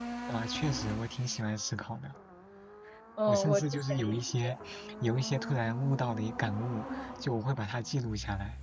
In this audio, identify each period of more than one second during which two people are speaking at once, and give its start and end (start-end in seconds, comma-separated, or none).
3.3-4.6